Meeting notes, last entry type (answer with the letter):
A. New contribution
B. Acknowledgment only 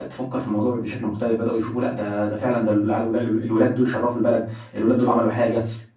B